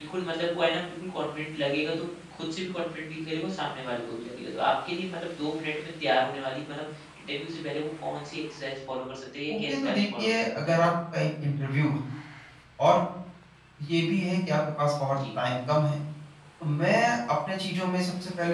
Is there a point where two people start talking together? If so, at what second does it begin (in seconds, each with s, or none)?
9.5 s